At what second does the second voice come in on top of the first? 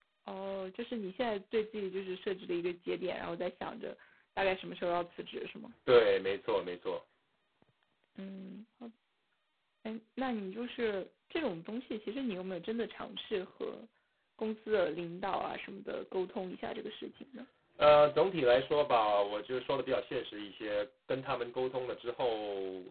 none

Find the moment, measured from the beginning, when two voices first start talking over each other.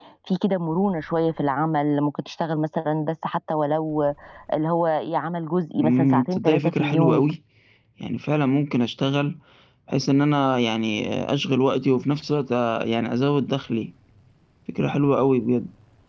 6 s

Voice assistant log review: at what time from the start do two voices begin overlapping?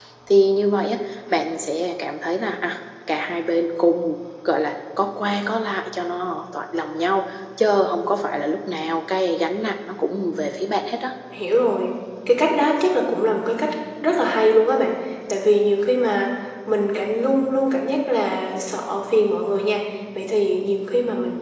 none

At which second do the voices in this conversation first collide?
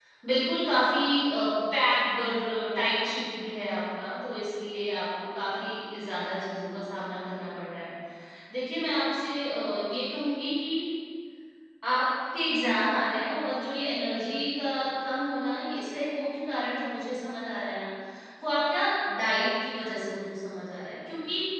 none

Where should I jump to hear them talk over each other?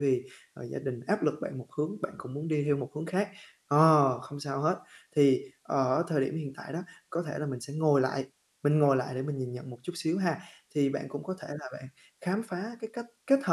none

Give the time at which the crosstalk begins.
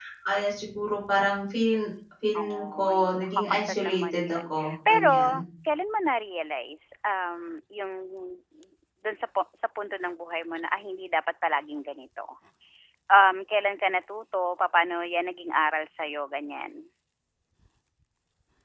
2 s

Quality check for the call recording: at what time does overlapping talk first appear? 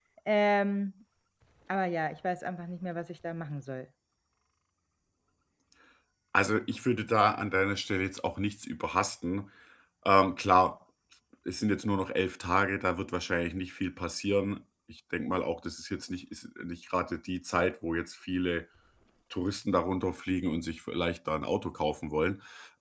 none

